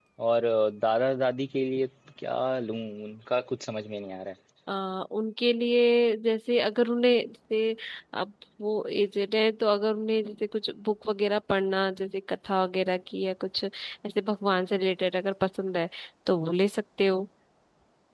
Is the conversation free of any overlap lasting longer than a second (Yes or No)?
Yes